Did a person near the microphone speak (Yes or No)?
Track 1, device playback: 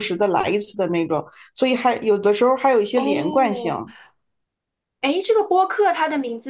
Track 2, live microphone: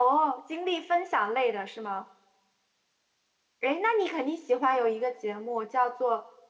Yes